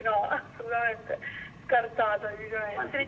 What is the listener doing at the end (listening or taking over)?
taking over